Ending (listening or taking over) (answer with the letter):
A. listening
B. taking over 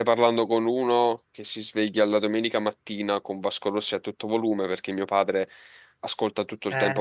A